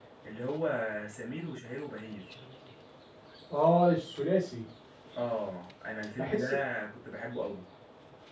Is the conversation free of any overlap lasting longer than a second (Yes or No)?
Yes